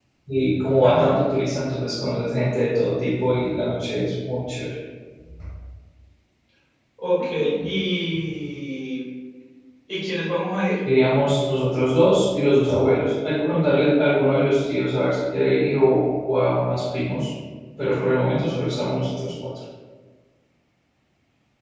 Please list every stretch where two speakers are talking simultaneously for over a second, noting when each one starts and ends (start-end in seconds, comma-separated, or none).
none